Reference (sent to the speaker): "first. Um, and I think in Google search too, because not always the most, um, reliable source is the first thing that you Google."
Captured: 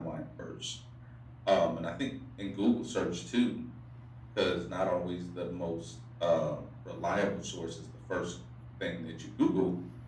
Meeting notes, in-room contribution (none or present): none